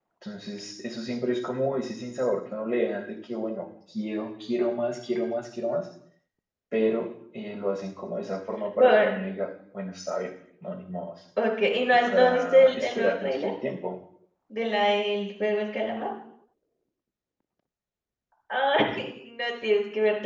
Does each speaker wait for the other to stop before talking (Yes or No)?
No